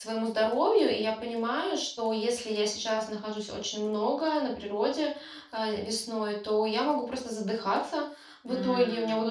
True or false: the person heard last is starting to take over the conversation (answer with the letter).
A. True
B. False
B